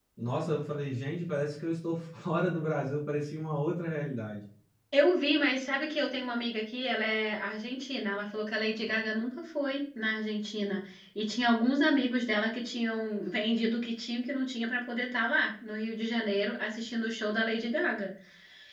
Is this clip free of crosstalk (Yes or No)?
Yes